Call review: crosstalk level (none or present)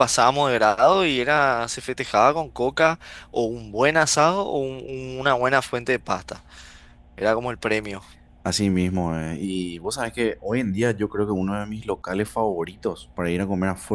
none